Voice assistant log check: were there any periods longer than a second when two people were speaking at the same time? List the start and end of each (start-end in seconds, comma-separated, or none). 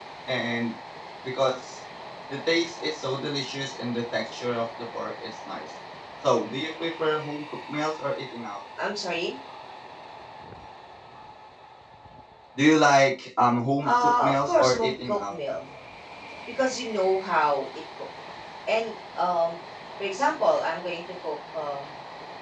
13.8-15.3